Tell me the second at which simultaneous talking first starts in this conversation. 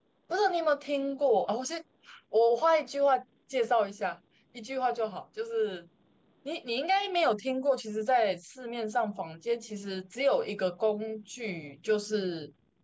none

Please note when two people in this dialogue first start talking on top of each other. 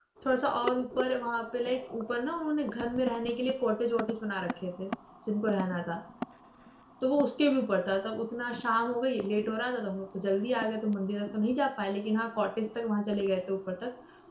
none

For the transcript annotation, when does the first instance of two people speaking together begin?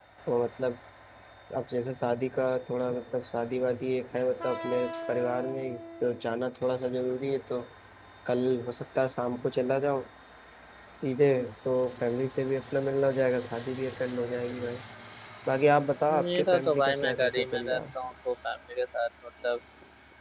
16.1 s

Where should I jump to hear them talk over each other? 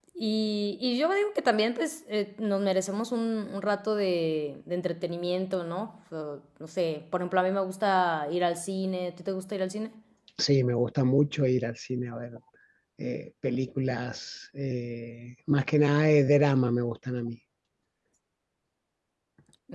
none

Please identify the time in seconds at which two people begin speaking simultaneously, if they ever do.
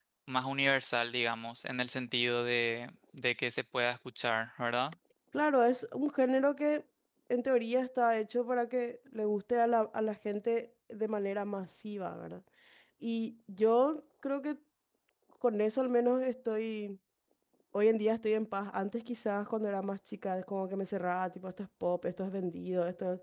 none

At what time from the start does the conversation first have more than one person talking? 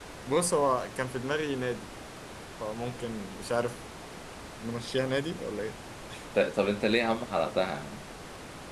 none

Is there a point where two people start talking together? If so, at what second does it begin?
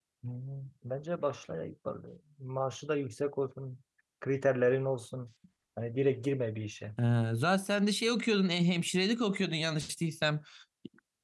none

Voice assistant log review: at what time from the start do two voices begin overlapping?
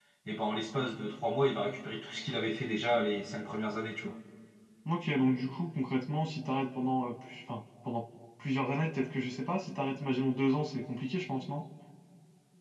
none

